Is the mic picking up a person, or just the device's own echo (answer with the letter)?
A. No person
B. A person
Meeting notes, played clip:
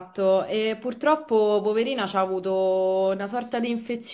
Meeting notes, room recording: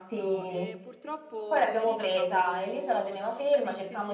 B